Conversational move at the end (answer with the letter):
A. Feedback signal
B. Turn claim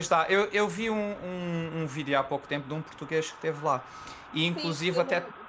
B